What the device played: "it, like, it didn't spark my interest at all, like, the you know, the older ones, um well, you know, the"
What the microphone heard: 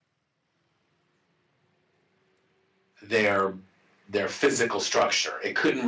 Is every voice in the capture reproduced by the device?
No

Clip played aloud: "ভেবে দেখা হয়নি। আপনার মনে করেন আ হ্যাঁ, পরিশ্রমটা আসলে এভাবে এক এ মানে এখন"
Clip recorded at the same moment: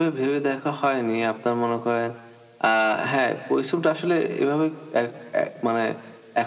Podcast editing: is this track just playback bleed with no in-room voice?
Yes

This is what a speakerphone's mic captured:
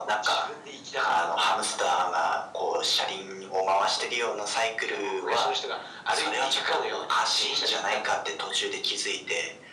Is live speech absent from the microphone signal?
Yes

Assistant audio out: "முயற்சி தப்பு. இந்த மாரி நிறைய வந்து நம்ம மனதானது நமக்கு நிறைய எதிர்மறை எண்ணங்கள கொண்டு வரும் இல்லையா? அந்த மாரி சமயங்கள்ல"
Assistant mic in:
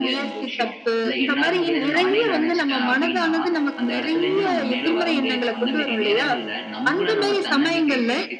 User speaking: Yes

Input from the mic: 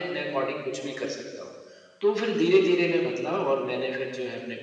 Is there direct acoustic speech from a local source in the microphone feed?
No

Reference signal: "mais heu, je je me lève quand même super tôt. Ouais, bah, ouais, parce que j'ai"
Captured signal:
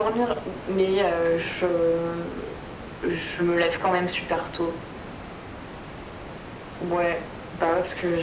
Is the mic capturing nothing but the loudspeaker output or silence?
Yes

